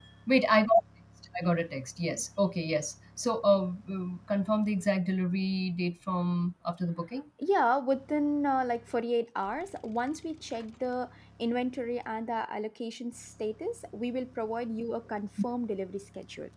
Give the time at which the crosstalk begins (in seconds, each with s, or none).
none